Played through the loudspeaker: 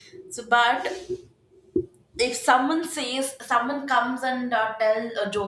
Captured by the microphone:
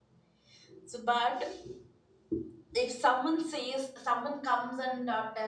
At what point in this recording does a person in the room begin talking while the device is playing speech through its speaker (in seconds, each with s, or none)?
none